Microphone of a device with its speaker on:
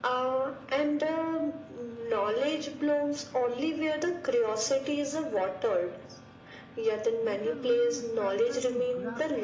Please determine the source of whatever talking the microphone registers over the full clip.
both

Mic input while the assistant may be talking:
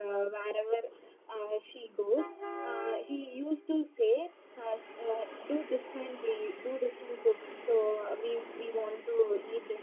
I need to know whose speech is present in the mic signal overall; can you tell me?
echo only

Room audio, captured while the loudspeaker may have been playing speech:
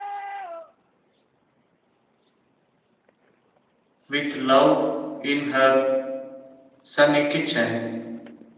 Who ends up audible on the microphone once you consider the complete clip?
user only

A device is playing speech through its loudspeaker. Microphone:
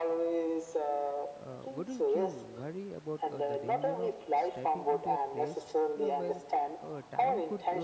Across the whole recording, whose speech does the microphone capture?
both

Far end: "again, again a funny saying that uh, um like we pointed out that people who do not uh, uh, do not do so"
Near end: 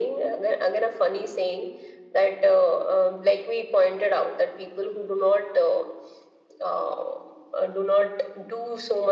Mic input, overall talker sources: echo only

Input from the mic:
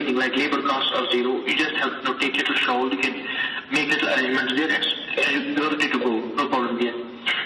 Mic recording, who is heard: echo only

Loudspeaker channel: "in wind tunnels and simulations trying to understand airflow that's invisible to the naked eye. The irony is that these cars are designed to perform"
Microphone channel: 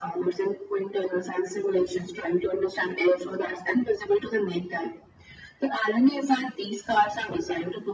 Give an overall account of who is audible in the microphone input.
echo only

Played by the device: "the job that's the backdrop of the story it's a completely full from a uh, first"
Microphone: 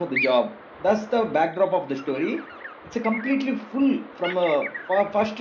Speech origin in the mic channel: echo only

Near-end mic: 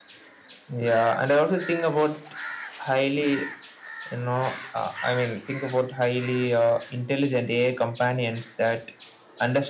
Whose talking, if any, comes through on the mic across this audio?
echo only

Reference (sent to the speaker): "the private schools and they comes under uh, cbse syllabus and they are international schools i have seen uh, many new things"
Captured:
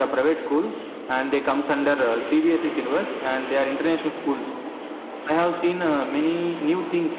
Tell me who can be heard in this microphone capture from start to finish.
echo only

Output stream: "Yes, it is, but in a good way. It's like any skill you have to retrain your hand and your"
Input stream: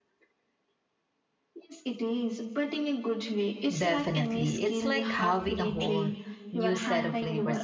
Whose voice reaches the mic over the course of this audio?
both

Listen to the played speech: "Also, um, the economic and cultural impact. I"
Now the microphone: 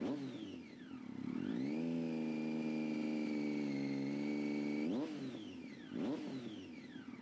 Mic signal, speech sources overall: neither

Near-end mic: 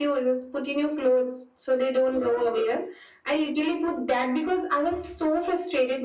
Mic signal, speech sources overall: echo only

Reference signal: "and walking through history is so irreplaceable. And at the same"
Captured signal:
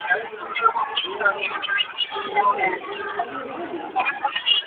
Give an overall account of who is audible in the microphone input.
both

